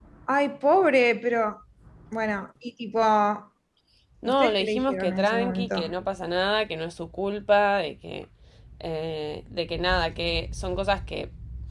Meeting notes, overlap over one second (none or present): present